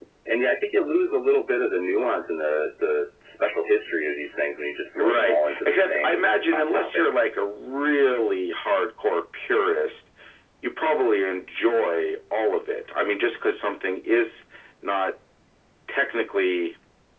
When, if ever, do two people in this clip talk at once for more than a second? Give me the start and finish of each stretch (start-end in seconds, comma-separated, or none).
5.0-7.0